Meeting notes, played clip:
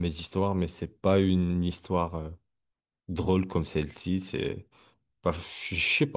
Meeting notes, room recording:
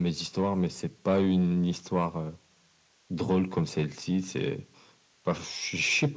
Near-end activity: none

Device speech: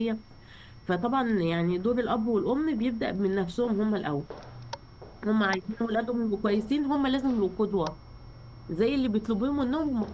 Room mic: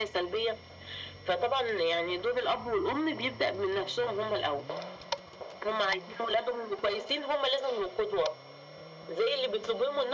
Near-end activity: none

